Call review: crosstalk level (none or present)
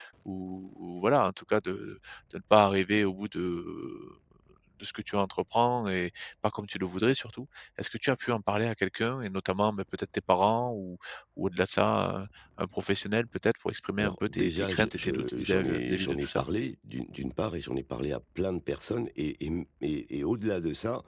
present